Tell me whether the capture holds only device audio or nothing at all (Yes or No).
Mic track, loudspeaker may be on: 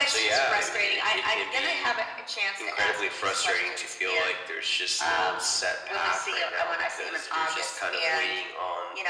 Yes